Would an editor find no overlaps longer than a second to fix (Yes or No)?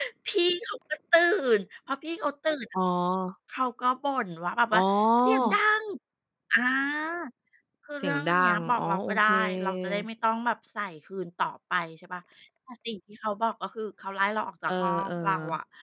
No